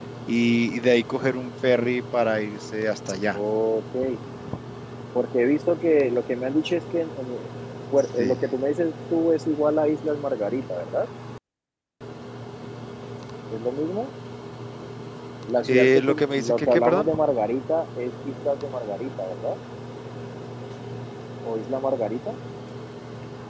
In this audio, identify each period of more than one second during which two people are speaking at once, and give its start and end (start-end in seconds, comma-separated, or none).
15.6-17.1